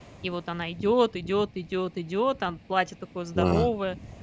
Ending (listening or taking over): taking over